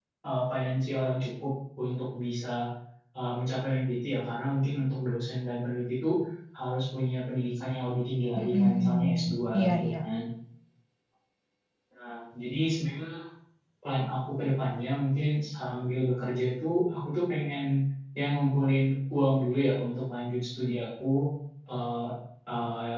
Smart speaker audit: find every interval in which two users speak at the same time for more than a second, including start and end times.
8.4-9.9

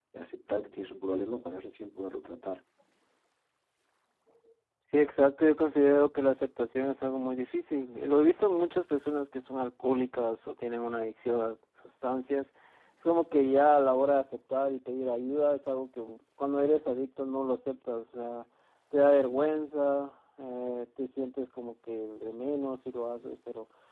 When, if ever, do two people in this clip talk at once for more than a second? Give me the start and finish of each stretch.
none

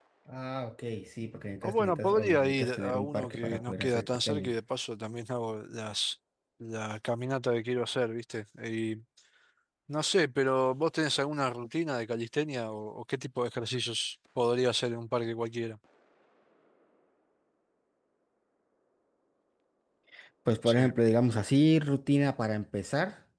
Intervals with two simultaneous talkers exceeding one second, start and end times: 1.6-4.5

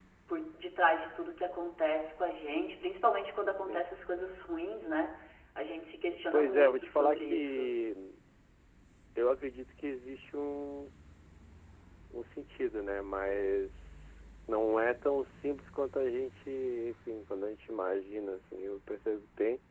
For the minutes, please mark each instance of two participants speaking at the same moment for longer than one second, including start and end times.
6.3-7.8

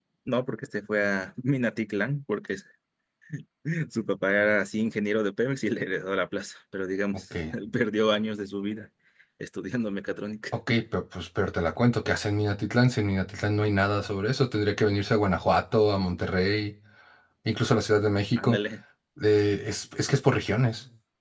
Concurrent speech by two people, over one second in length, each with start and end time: none

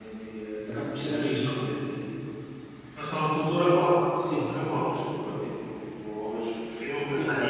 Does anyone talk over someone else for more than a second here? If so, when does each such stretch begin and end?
none

